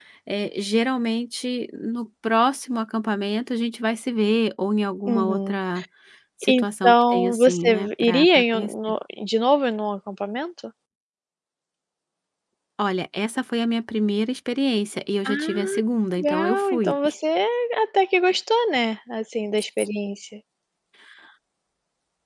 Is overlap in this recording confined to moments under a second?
No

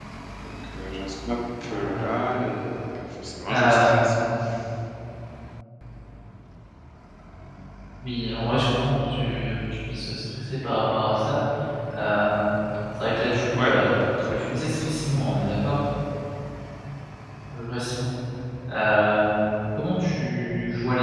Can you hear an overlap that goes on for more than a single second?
Yes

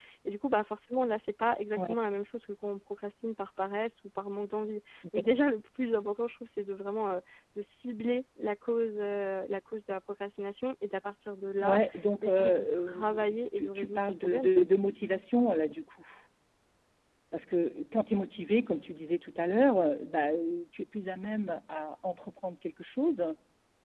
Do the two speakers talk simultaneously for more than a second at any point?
Yes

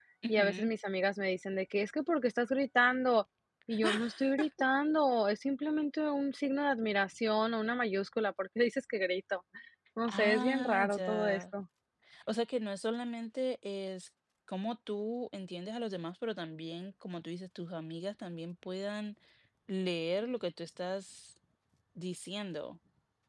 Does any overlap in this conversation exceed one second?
Yes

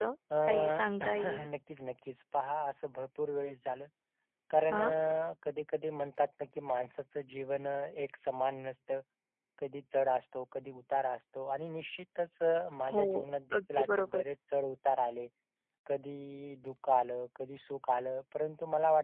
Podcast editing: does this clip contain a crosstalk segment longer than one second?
Yes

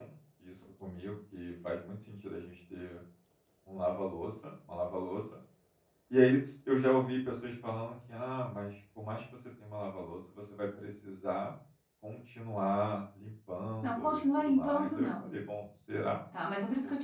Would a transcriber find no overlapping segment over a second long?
No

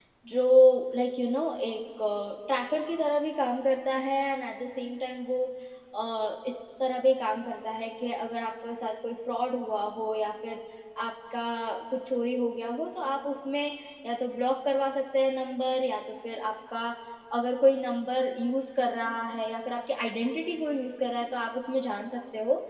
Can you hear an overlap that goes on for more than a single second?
No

